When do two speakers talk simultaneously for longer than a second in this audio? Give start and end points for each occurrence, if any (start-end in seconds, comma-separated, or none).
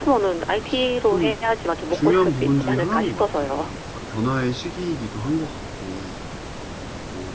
1.9-3.7